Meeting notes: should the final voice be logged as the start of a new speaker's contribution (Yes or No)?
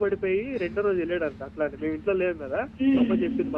No